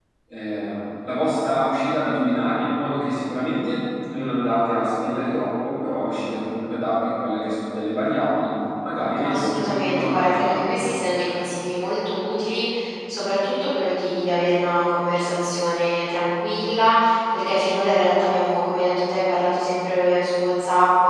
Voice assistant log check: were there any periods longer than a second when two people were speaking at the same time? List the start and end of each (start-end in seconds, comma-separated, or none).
9.2-10.7